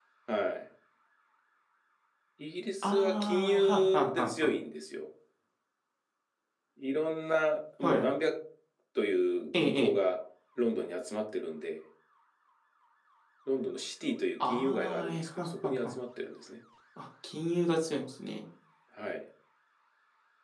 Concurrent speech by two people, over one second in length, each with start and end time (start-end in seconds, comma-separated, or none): 2.8-4.5, 14.4-15.9